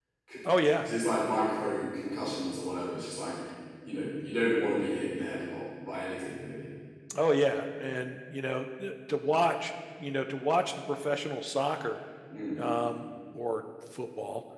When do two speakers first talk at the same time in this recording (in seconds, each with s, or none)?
none